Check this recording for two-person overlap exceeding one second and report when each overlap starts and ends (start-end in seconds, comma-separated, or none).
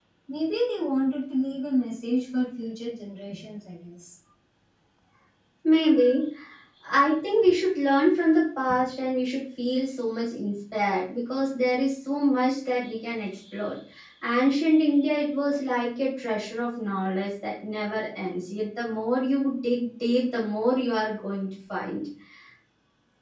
none